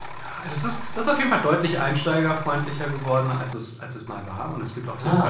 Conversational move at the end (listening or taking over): listening